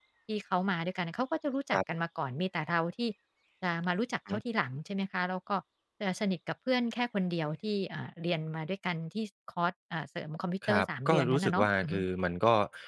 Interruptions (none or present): present